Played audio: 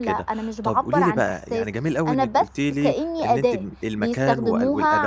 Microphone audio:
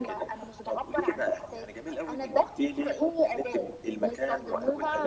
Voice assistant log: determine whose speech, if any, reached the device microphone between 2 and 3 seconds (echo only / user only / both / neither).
echo only